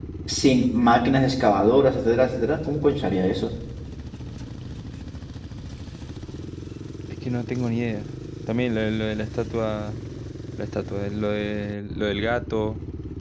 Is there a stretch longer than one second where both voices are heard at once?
No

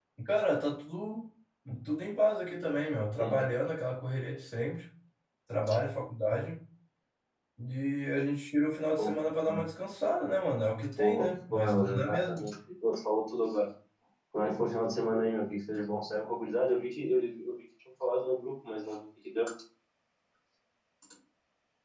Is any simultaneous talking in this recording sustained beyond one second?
Yes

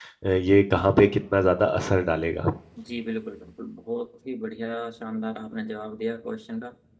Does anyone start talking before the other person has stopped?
No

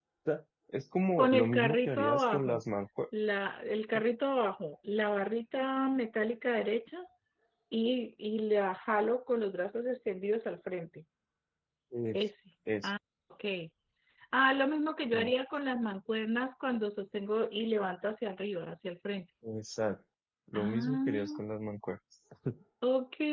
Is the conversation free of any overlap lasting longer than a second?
No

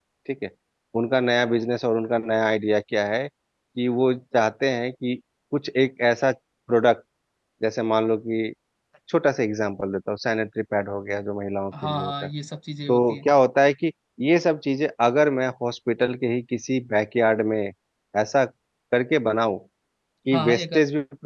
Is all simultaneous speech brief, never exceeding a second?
Yes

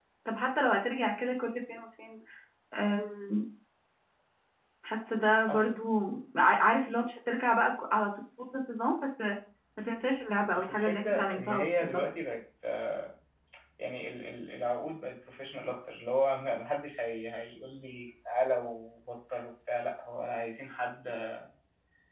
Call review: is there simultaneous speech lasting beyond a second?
Yes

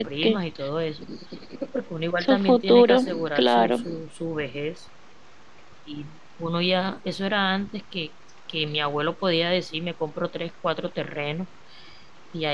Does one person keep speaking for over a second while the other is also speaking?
Yes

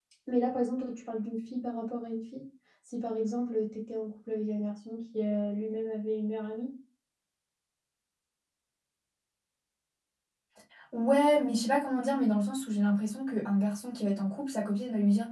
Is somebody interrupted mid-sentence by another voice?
No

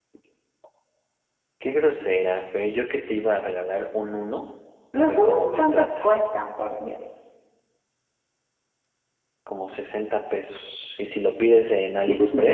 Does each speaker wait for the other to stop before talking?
No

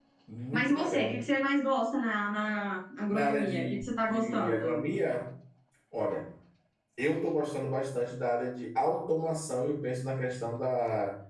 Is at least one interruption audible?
Yes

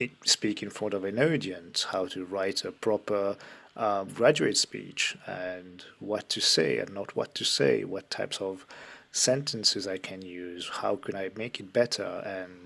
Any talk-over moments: No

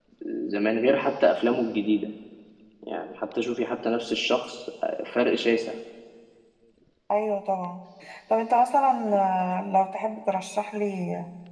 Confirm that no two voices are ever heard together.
Yes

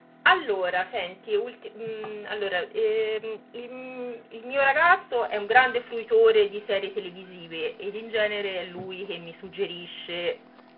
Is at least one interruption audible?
No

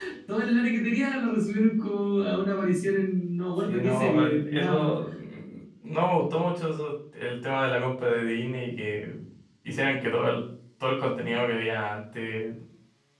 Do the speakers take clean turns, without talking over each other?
No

